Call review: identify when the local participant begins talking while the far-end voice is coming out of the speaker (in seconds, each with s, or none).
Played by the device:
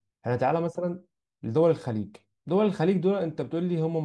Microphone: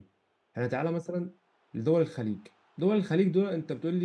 none